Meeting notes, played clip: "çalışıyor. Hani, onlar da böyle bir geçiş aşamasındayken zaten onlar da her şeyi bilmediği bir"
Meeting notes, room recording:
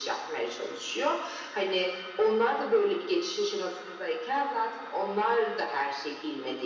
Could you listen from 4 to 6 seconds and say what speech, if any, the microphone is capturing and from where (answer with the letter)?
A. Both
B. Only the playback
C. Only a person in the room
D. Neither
B